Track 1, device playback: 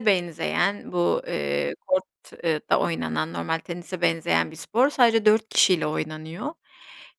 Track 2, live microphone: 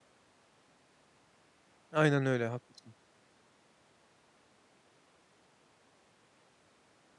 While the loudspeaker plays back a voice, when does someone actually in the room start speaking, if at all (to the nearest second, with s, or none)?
2 s